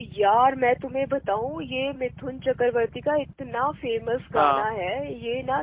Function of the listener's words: listening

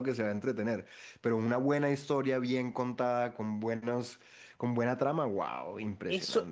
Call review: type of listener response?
taking over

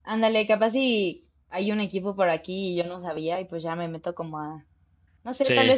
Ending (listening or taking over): listening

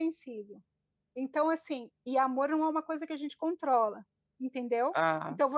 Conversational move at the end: listening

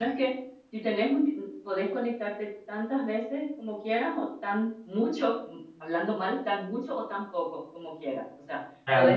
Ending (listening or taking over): listening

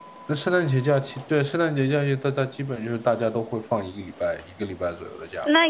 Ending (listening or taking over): taking over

